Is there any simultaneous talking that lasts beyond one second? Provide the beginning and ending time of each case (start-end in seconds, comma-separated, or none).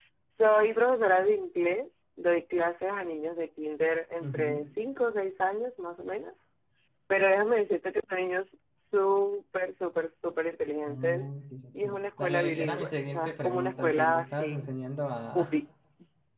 11.8-14.7